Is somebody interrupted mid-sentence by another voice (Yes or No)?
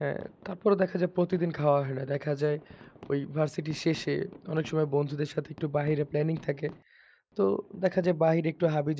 No